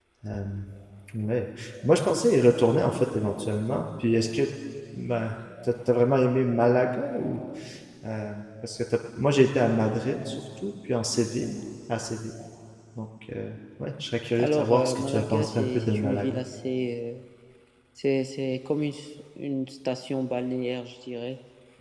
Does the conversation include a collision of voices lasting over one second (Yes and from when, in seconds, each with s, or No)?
Yes, from 14.4 s